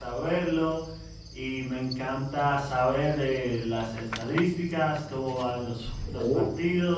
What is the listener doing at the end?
listening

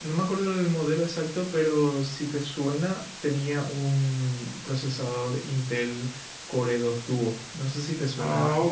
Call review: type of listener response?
taking over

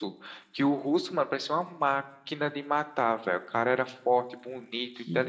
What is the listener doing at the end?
taking over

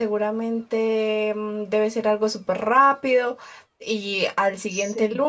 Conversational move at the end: listening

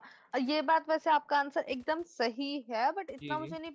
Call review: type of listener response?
listening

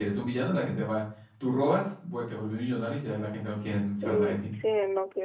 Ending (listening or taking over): taking over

